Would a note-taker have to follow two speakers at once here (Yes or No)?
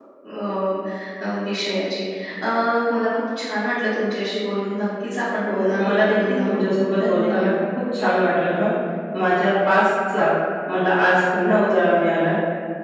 Yes